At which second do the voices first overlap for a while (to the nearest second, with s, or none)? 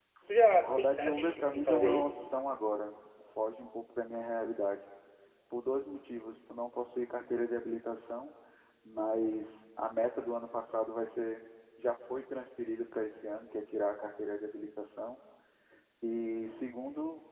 1 s